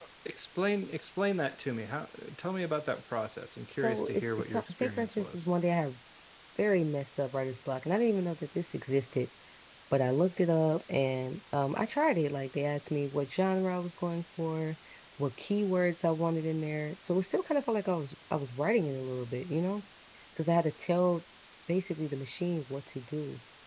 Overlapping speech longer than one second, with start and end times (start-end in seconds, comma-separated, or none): 3.7-5.4